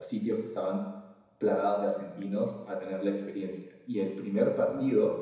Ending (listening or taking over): listening